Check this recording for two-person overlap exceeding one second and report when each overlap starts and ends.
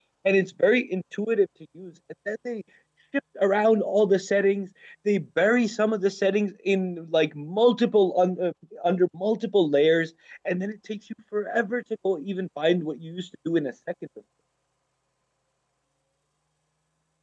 none

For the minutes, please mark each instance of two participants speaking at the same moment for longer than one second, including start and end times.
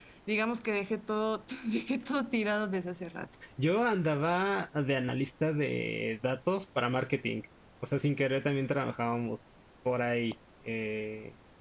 none

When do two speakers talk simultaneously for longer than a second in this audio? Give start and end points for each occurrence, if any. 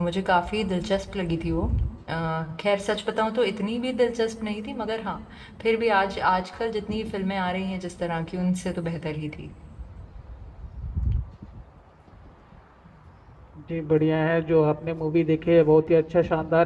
none

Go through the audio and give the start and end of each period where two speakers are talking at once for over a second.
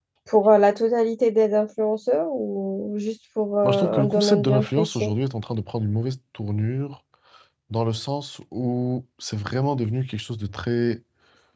3.6-5.1

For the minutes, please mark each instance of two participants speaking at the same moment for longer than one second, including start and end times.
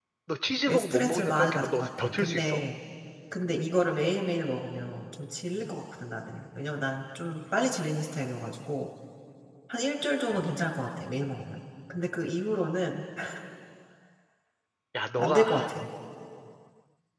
0.7-2.6

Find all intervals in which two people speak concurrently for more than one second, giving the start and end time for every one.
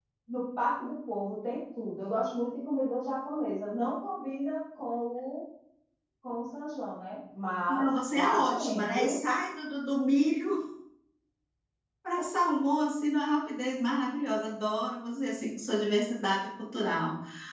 7.7-9.2

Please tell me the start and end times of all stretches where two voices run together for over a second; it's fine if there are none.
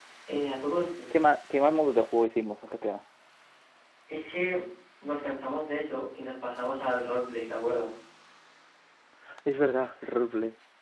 none

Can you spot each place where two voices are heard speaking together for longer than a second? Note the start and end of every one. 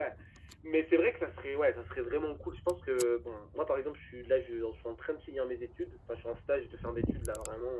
none

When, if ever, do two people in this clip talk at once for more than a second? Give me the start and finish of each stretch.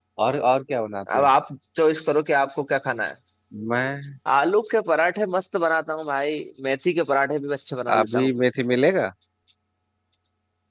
none

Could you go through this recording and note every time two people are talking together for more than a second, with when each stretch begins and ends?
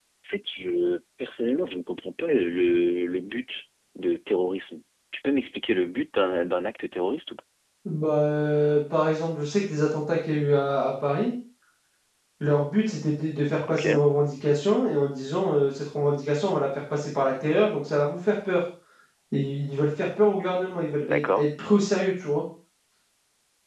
none

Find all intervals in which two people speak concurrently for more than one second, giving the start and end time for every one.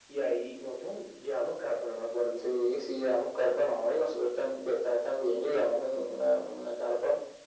none

